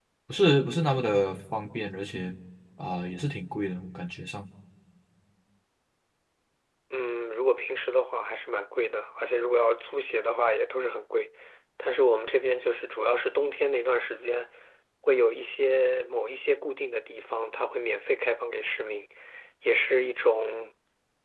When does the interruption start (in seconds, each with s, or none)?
none